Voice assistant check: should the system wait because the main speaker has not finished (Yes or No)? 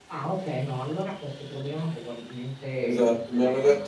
No